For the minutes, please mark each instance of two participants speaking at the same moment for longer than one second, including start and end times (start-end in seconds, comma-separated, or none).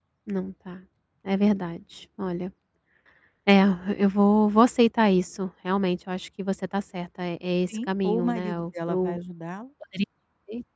7.7-9.2